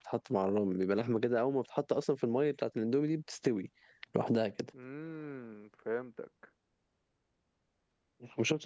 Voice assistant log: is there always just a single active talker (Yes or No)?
Yes